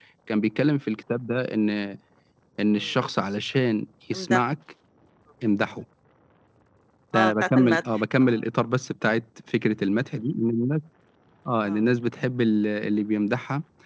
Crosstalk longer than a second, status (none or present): present